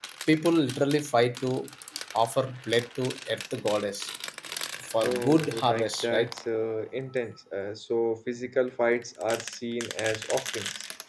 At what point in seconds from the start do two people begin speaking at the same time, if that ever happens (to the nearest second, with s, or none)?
5 s